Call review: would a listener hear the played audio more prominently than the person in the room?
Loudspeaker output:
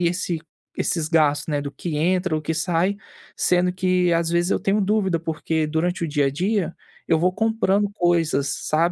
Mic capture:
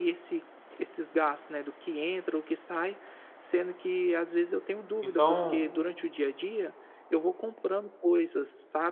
No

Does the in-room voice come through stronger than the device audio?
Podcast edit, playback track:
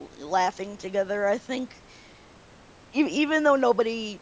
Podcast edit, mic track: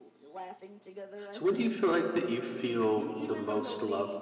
Yes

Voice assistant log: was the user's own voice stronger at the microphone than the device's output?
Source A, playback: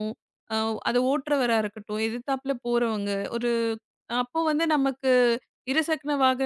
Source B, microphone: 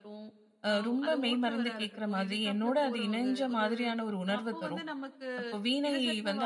Yes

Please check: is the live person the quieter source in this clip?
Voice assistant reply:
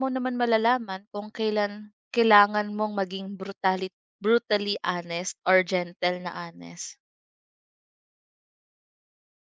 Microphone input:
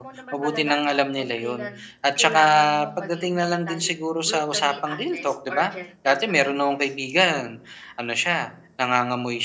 No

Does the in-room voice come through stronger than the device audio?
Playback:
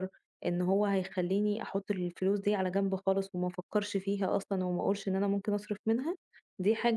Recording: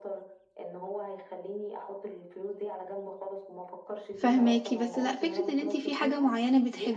Yes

